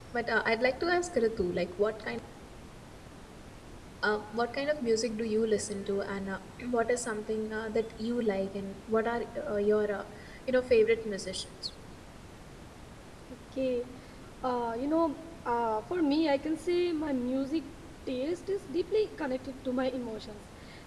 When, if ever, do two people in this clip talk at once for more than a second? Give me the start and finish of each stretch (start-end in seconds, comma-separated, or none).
none